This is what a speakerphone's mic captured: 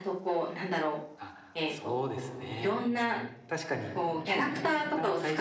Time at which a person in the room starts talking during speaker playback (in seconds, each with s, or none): 1.1 s